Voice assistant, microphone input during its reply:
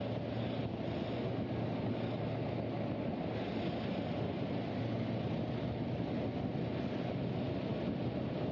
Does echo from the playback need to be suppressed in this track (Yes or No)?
No